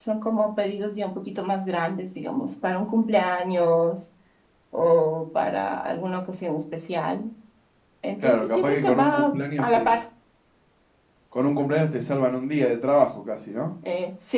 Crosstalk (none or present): present